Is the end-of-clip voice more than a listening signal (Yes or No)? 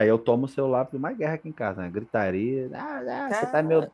No